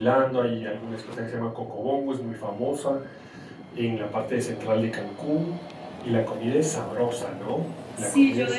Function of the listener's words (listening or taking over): taking over